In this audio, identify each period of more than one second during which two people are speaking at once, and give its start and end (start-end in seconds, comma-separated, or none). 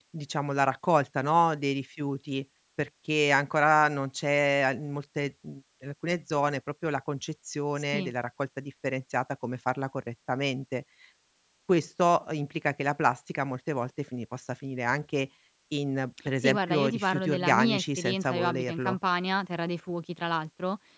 16.4-19.0